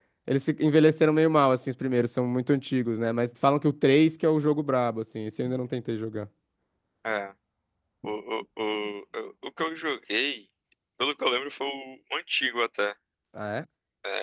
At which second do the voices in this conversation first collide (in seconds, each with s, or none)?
none